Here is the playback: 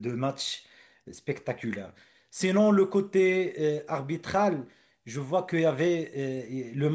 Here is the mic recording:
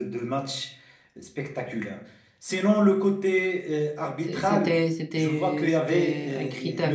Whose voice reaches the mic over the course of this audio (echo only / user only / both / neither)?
both